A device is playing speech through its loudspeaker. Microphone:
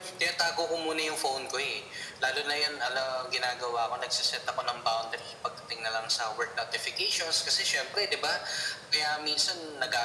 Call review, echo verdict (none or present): present